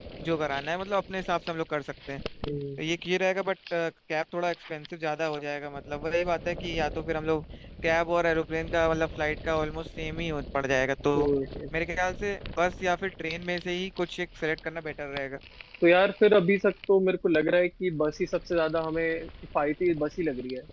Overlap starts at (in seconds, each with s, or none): none